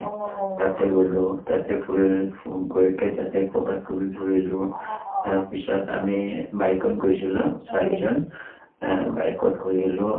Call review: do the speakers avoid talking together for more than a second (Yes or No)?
Yes